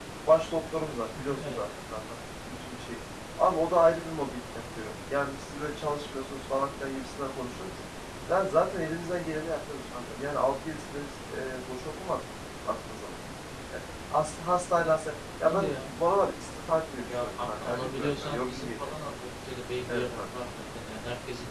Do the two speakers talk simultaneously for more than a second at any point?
Yes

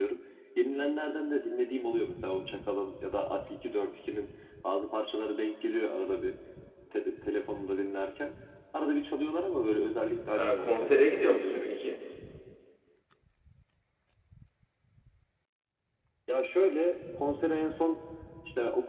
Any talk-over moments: Yes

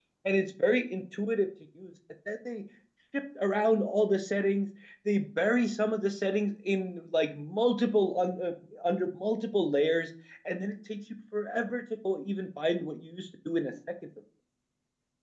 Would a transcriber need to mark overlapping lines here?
No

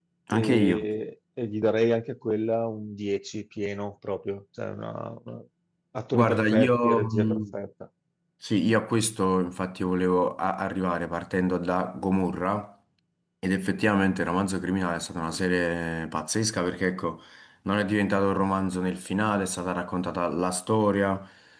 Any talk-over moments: Yes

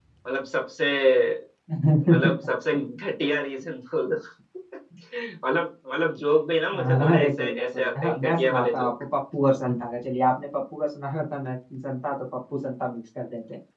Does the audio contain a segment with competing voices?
Yes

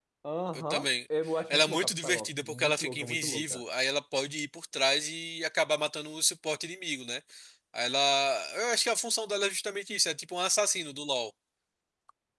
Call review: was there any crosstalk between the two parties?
Yes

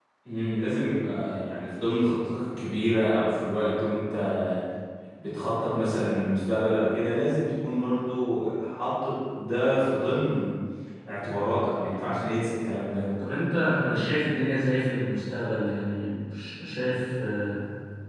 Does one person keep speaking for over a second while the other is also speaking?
No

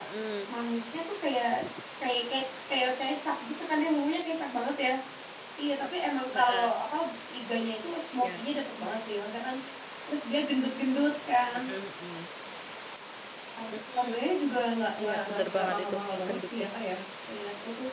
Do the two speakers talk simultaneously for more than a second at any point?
Yes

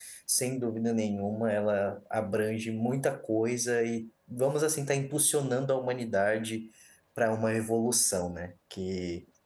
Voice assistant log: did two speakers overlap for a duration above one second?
No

